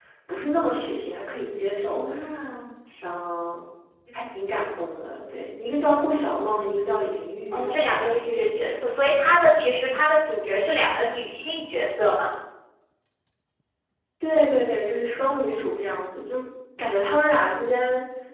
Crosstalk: present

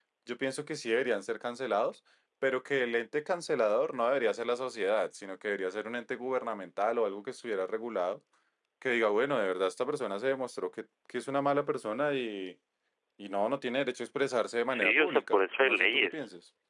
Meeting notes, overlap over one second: present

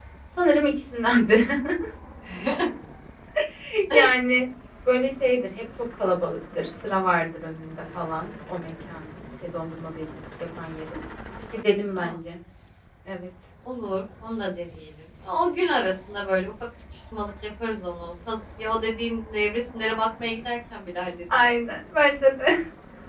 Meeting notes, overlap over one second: none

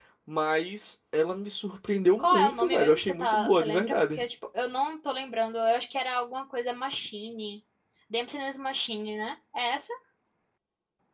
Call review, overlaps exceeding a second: present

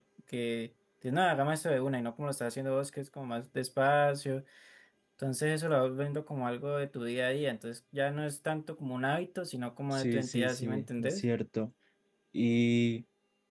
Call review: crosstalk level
present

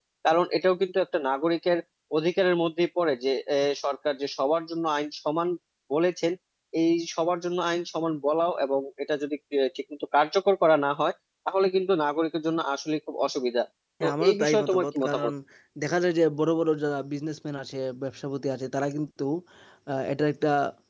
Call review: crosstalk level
present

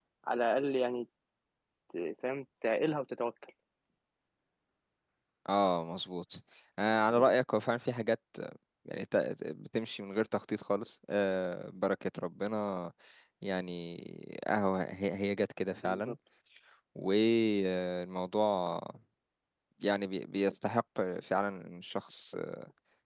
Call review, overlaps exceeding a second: none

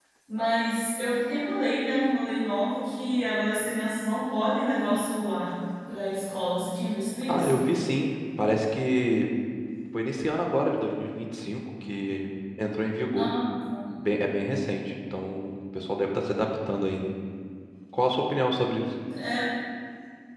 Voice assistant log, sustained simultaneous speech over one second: none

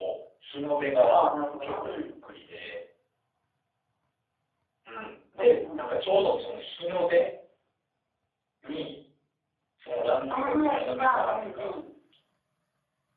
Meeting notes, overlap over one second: present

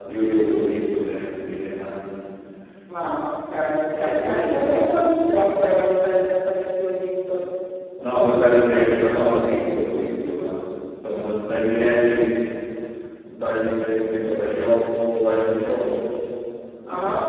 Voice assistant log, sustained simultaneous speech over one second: present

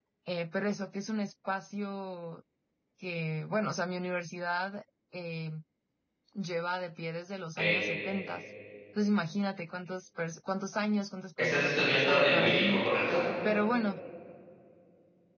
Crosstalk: present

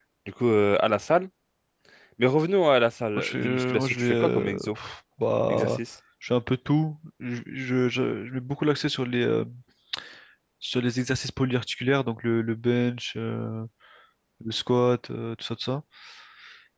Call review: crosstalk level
present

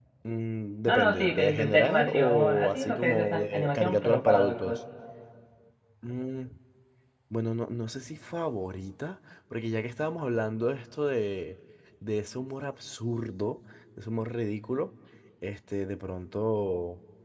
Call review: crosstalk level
present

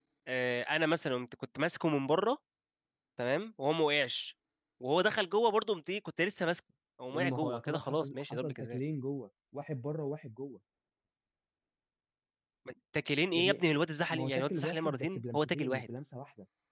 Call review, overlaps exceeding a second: present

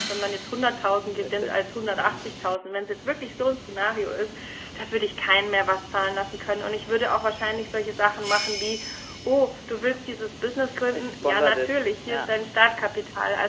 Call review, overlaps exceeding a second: present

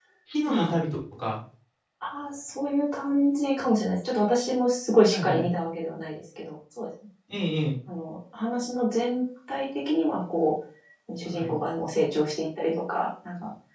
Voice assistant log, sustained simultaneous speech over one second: none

